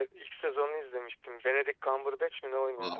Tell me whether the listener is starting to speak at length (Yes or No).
Yes